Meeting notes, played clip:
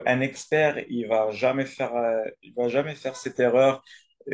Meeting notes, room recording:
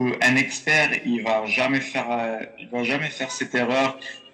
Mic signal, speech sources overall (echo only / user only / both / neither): echo only